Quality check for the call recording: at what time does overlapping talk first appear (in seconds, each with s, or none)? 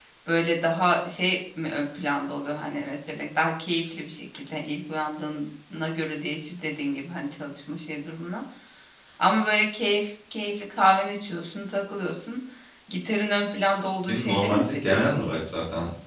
14.1 s